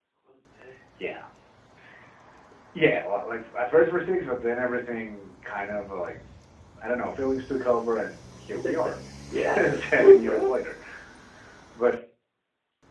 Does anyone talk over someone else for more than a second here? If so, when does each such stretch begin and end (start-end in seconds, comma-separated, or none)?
9.3-10.5